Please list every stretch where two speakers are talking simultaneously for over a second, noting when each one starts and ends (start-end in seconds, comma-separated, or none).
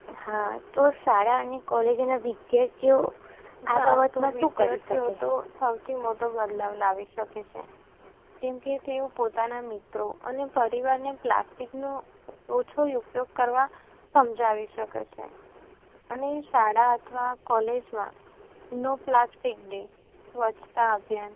3.7-5.1